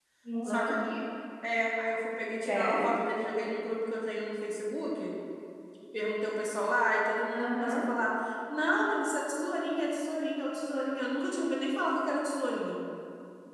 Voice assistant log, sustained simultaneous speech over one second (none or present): none